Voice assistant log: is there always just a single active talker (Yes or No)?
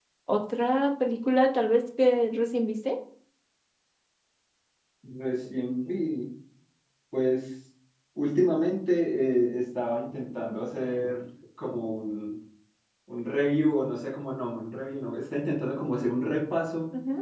Yes